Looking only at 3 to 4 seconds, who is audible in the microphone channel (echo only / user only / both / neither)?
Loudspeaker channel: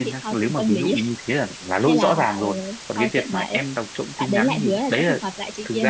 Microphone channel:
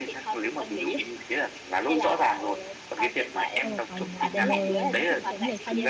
both